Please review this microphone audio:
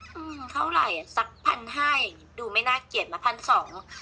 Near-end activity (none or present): none